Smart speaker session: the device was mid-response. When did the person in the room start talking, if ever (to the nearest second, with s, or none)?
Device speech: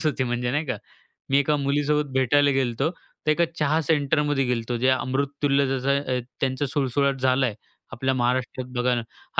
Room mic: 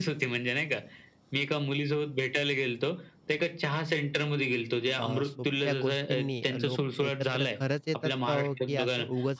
5 s